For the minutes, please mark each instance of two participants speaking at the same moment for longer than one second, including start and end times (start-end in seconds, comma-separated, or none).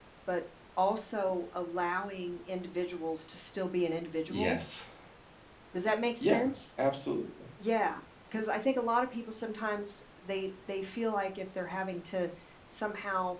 none